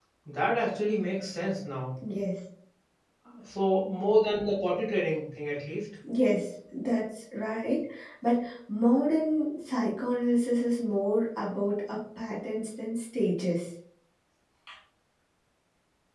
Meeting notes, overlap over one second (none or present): none